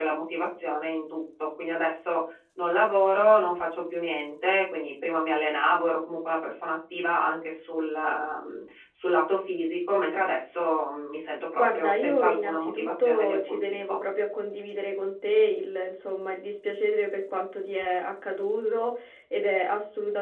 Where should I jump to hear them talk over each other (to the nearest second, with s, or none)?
12 s